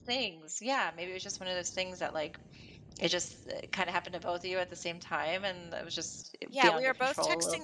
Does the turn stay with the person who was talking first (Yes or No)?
No